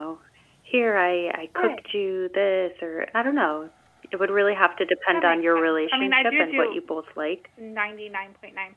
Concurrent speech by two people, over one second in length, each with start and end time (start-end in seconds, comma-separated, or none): 5.1-6.8